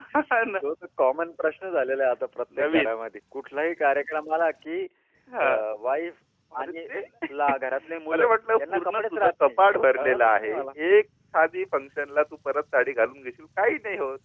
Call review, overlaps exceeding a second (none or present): present